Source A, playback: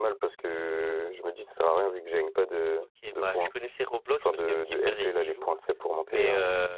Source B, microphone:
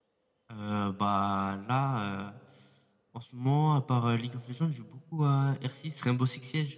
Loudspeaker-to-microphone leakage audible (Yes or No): No